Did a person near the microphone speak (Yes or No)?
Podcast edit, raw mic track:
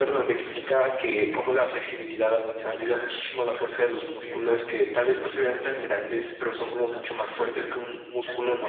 Yes